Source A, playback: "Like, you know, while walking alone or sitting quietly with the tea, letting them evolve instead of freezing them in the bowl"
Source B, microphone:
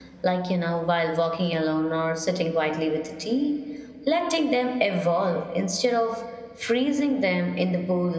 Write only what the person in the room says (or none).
none